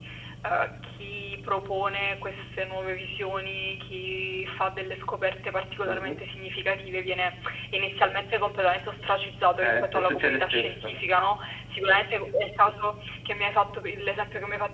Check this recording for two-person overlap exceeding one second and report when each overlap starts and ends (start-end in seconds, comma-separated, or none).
9.6-10.9